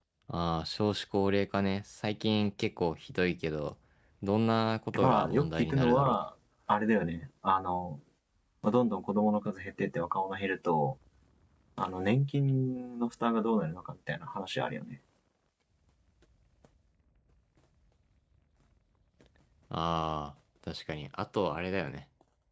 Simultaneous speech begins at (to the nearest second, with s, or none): 5 s